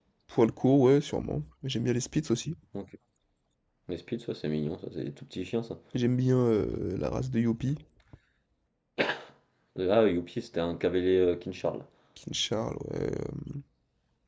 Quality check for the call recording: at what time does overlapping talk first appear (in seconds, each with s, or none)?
none